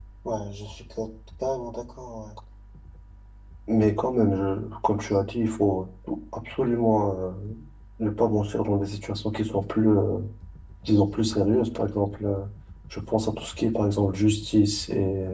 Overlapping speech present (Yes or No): No